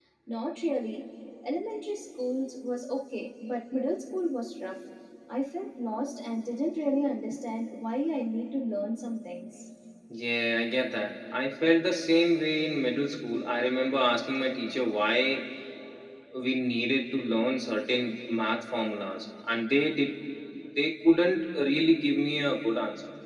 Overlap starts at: none

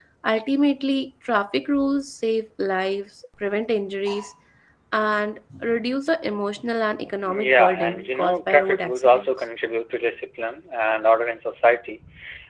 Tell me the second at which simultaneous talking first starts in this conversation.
7.2 s

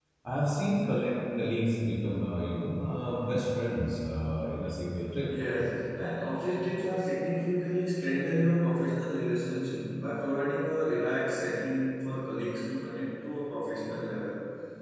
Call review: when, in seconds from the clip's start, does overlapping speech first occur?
none

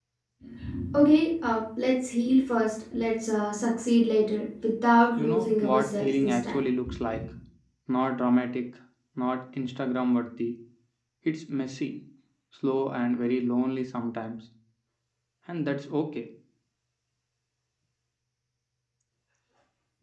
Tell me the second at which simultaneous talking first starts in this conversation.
5.2 s

